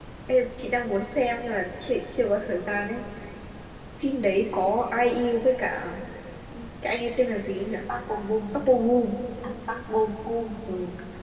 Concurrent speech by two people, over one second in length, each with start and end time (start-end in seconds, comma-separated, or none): none